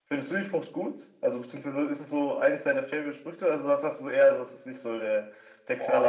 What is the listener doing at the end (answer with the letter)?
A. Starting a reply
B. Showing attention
A